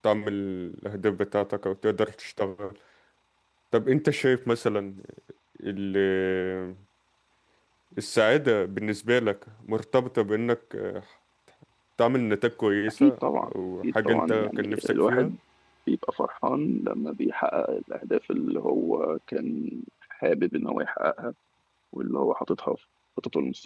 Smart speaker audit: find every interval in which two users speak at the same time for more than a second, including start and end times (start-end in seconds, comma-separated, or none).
14.1-15.3